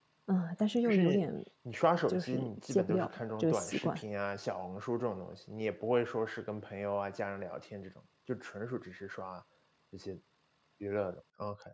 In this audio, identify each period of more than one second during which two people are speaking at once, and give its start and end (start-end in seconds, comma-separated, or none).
2.1-4.0